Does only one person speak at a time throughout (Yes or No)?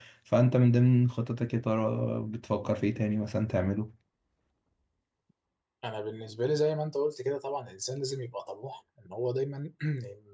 Yes